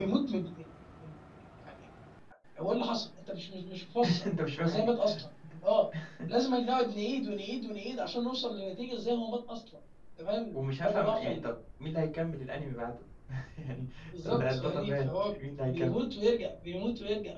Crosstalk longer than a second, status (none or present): present